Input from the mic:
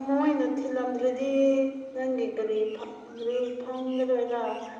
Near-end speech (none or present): none